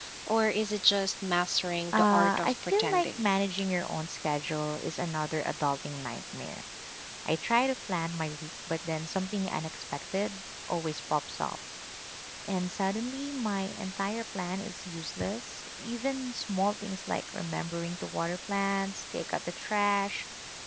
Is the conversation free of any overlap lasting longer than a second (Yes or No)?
No